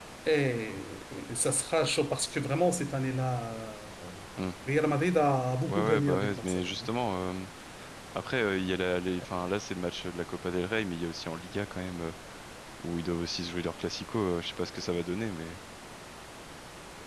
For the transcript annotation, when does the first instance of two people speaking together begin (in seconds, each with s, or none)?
5.6 s